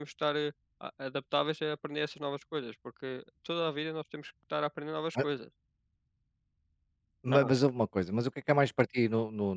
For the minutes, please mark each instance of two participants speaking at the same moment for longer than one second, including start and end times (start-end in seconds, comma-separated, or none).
none